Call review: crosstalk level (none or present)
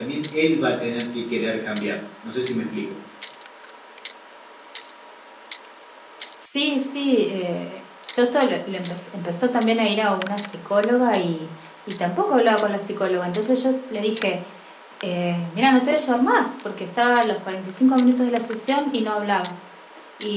none